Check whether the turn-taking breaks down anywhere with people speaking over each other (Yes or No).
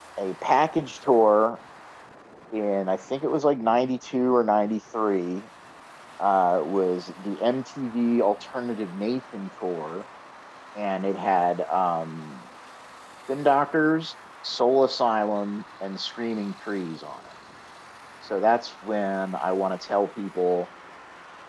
No